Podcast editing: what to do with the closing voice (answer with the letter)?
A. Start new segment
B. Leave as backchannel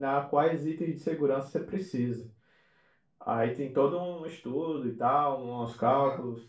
A